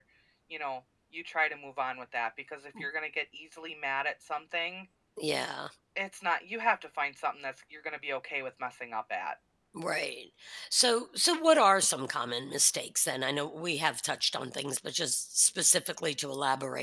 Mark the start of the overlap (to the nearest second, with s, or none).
none